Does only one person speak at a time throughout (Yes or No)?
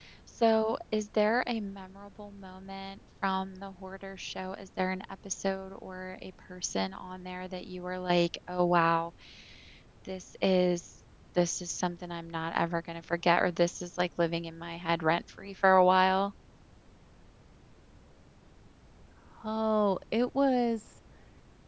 Yes